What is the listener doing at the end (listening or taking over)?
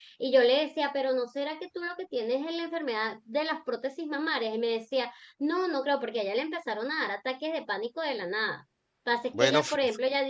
listening